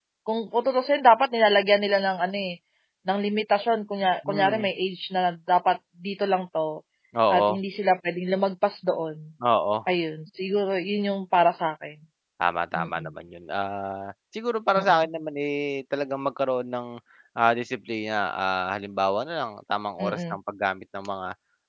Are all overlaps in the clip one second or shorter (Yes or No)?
Yes